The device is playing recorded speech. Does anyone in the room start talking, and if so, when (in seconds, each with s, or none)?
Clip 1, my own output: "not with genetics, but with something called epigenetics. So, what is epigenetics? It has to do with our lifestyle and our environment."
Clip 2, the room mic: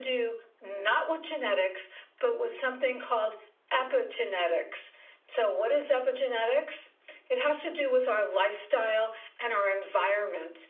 none